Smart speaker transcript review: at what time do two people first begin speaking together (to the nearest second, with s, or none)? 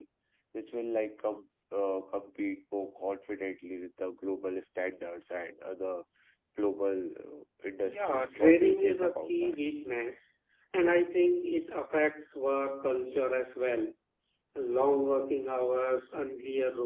8 s